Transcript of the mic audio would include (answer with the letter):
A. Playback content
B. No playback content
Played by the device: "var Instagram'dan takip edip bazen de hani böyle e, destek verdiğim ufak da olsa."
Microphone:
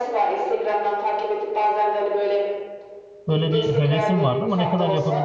A